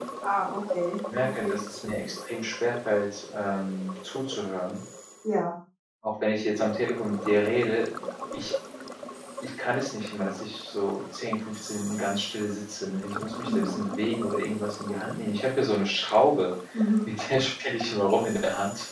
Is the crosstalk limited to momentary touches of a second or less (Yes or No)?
Yes